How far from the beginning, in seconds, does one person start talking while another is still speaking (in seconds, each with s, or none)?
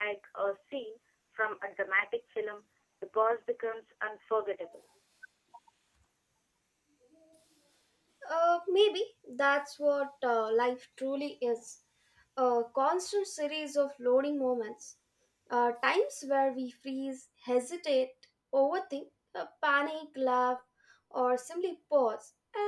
none